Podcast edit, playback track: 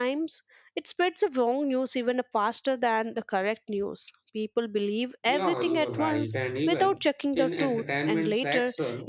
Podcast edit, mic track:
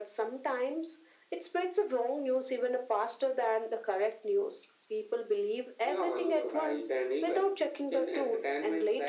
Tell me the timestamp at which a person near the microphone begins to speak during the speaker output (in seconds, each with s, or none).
none